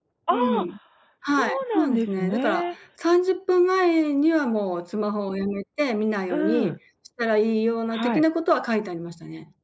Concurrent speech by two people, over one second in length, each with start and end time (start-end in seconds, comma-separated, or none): 1.3-2.7